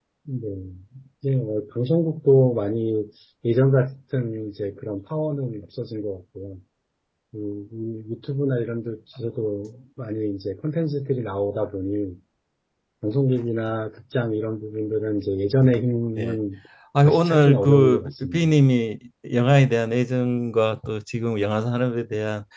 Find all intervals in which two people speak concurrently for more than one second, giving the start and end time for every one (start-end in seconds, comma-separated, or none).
17.0-18.5